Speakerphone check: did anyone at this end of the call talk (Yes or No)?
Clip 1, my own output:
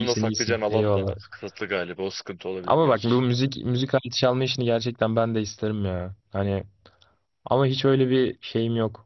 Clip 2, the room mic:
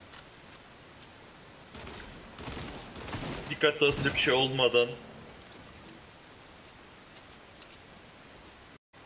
Yes